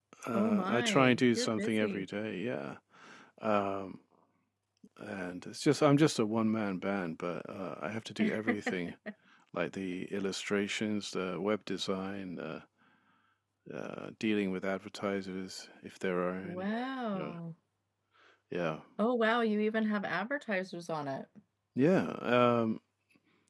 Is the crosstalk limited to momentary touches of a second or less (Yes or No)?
No